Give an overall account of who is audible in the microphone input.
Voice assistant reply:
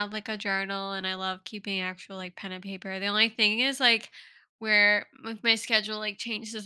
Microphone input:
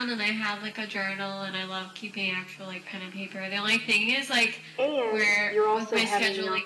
both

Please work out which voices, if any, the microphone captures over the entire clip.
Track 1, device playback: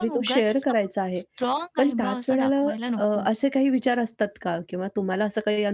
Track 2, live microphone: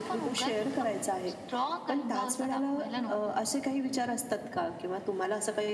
echo only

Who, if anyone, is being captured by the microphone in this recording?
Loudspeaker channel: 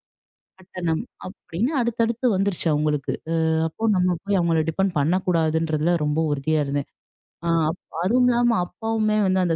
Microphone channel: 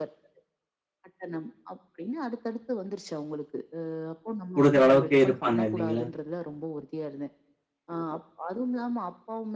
both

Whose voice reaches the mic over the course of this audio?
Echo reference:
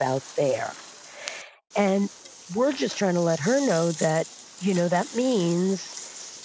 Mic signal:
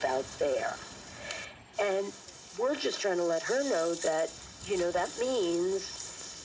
echo only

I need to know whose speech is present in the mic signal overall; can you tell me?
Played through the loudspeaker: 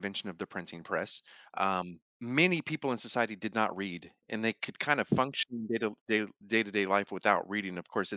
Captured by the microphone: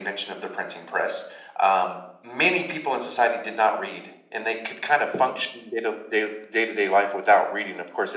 echo only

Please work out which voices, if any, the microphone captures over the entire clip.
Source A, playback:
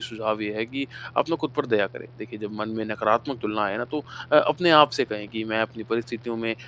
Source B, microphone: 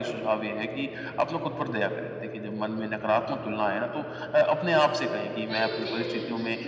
both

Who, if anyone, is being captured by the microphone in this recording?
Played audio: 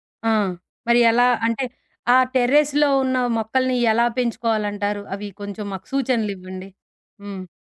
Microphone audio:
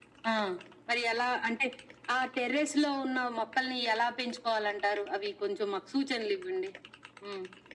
echo only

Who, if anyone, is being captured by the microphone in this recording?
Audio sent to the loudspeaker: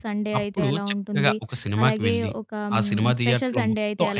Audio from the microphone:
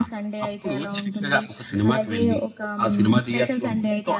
echo only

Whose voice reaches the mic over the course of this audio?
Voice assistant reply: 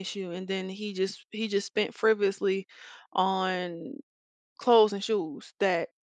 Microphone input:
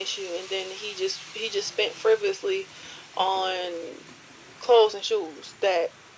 echo only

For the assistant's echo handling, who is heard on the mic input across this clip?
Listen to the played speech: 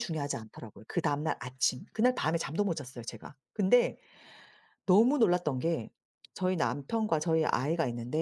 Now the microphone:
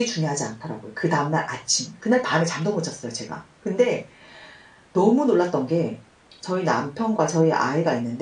echo only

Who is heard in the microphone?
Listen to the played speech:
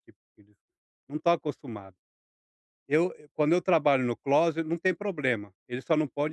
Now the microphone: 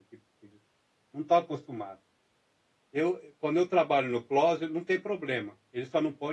echo only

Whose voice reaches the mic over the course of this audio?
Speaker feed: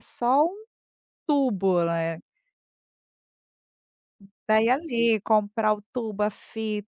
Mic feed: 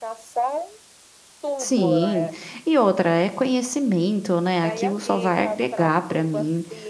both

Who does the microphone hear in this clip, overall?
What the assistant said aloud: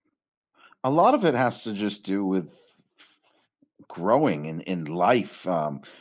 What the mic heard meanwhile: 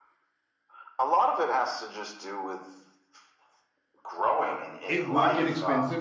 both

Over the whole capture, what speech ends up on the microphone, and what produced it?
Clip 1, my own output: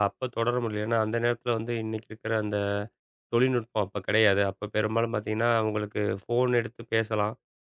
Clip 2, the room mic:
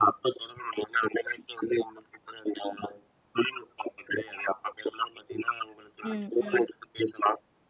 both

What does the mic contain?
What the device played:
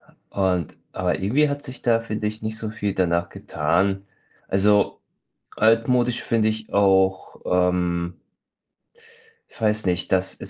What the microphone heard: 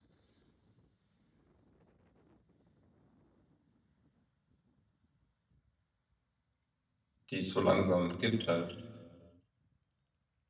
user only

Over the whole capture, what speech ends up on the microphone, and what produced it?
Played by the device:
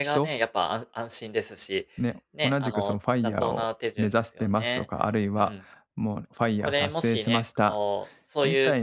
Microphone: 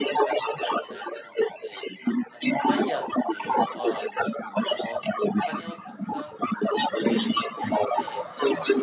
both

